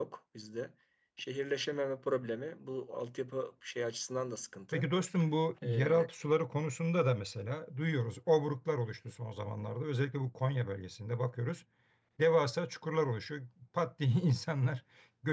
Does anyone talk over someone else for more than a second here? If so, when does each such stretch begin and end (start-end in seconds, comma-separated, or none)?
none